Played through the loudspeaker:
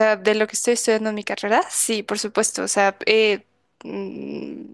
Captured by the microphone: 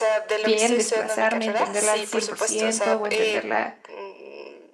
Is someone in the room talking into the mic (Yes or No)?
Yes